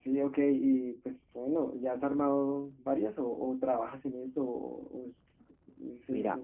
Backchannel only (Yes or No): No